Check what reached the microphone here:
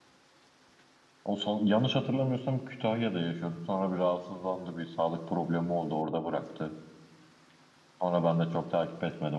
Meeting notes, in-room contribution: present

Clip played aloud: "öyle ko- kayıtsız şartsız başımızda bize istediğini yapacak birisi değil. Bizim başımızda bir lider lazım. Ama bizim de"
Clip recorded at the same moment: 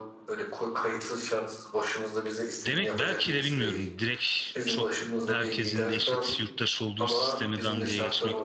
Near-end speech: present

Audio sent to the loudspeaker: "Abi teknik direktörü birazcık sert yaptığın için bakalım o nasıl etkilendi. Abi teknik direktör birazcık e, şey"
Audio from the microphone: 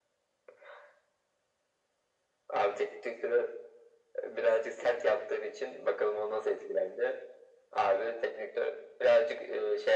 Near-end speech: none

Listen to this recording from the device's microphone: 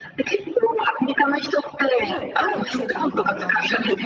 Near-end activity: present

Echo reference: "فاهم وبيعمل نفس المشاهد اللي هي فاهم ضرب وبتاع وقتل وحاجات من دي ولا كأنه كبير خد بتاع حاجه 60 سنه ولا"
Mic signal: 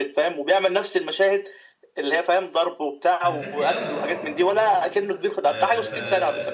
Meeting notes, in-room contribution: present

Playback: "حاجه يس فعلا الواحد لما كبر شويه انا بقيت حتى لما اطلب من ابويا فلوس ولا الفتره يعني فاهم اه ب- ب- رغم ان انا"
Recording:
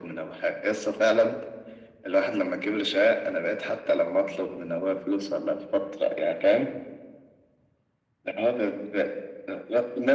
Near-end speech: none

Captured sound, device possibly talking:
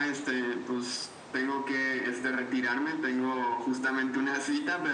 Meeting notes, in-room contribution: none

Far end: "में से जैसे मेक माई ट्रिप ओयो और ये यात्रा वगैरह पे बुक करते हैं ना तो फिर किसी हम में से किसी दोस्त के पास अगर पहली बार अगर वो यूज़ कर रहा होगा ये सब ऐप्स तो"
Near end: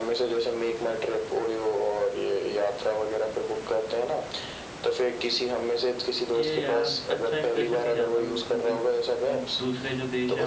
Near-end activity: present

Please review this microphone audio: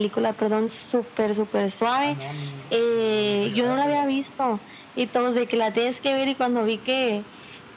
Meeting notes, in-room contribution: present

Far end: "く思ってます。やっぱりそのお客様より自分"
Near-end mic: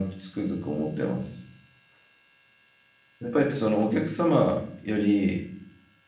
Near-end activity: none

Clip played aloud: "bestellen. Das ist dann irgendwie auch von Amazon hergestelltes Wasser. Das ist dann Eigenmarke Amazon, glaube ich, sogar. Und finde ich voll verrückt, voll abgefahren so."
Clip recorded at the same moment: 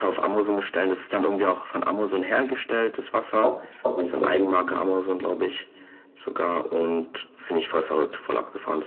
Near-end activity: present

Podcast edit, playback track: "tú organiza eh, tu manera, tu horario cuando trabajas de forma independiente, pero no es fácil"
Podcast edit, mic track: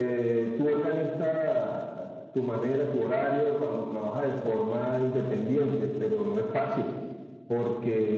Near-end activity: none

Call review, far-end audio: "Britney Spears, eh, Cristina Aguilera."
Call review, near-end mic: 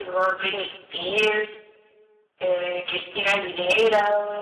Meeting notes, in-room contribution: none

